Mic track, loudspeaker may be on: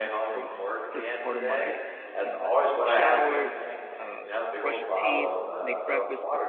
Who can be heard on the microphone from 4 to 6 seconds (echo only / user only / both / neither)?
both